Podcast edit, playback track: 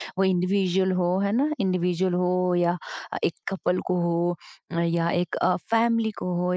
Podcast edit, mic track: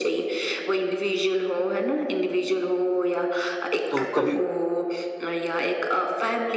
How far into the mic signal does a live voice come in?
3.9 s

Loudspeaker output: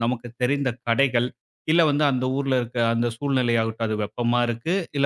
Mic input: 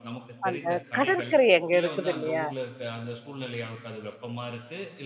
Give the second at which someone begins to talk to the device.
0.5 s

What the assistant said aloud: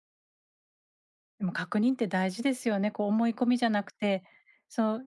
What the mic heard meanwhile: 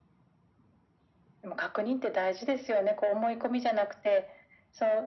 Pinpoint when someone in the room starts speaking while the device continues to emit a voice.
none

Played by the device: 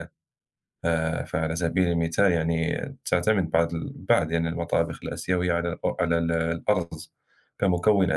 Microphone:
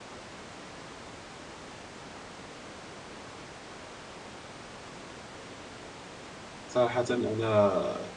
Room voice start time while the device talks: 6.7 s

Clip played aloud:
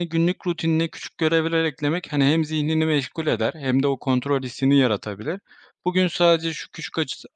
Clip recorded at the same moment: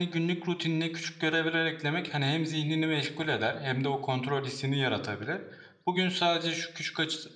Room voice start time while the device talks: none

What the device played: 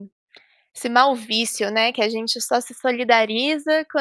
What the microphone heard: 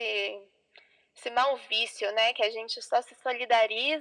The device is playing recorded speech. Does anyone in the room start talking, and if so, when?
none

